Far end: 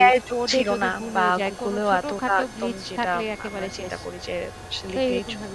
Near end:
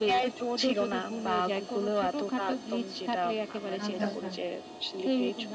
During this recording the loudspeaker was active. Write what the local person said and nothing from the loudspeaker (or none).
আচ্ছা, আচ্ছা।